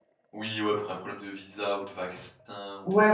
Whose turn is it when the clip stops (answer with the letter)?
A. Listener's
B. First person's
A